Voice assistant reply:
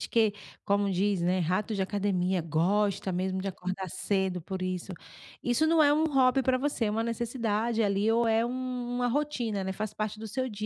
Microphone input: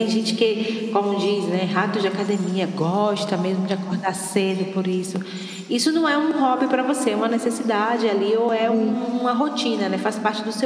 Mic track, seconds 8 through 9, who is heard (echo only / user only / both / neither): both